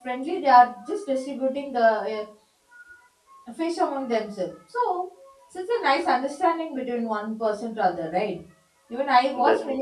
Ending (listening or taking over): listening